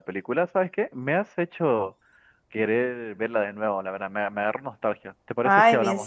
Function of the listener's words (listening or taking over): taking over